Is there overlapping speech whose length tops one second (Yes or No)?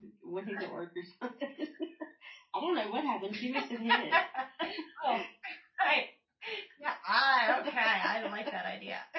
No